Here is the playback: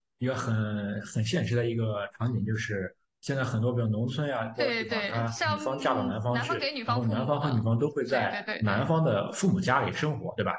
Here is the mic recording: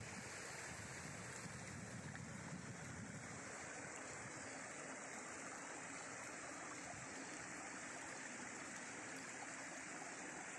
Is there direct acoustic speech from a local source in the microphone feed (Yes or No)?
No